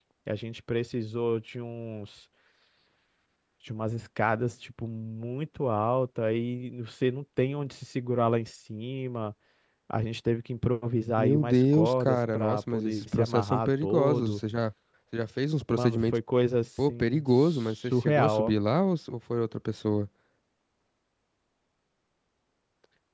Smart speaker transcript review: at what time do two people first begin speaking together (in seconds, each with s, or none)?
11.2 s